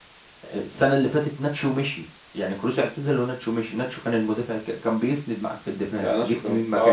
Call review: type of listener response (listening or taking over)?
taking over